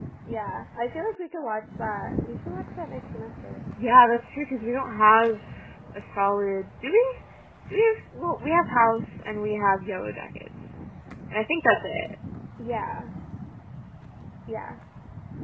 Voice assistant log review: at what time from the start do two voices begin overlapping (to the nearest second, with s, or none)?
none